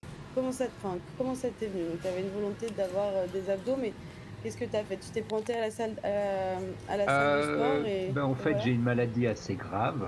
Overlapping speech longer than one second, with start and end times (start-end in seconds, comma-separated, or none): 7.1-8.7